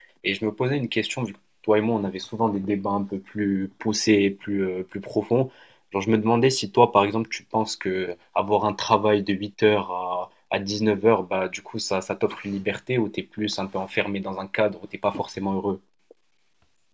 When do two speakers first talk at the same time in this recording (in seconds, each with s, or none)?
none